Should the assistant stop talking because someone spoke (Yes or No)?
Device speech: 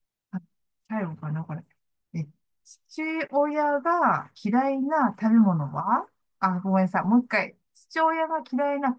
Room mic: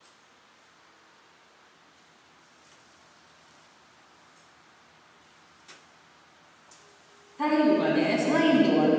Yes